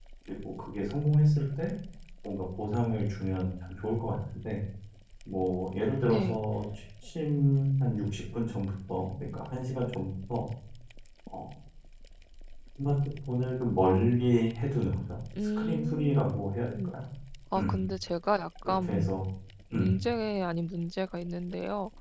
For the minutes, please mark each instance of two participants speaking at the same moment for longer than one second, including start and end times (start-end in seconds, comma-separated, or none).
15.6-16.9